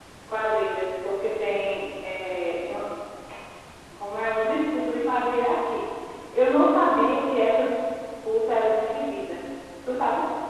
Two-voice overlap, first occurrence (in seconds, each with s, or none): none